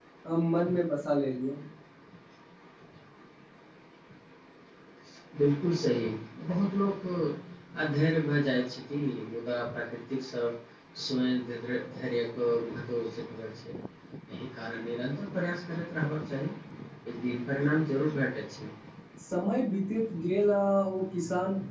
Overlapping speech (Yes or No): No